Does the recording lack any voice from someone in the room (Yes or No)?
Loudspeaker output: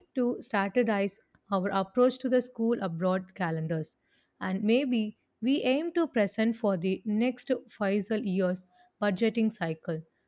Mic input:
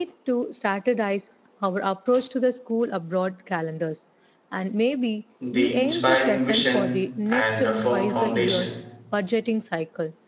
No